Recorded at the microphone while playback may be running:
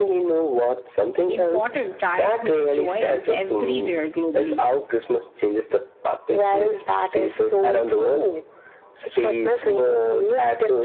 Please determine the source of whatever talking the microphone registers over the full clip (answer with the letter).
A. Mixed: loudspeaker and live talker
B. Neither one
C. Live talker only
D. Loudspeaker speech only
A